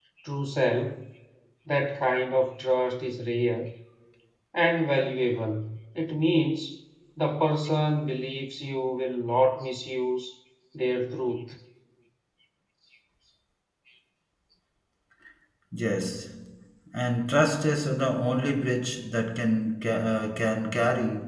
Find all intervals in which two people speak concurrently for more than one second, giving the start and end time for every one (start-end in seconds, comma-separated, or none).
none